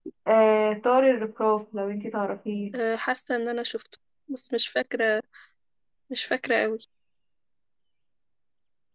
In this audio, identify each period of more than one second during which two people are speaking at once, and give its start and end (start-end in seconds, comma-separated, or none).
none